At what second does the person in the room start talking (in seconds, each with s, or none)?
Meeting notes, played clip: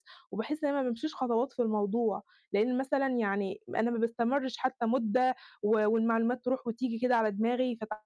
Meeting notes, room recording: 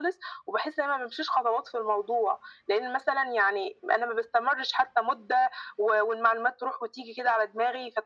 none